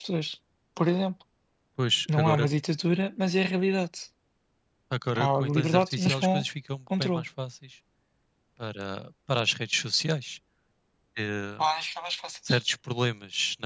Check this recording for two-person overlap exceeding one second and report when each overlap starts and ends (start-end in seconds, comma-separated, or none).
5.2-6.4